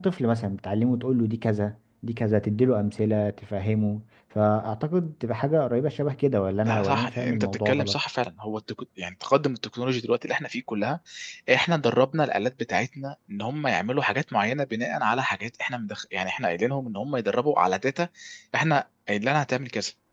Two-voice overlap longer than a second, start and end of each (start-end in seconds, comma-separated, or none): 6.7-8.0